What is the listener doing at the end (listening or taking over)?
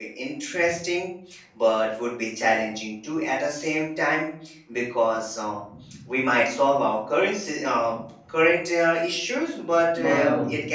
listening